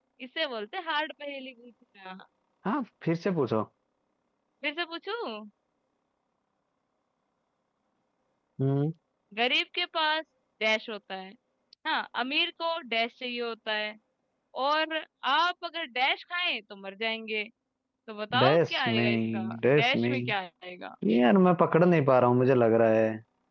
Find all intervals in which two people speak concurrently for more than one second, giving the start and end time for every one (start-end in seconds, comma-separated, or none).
18.4-20.3